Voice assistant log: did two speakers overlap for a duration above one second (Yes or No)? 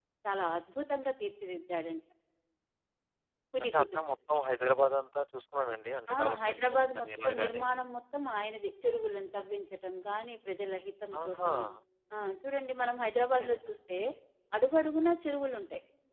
Yes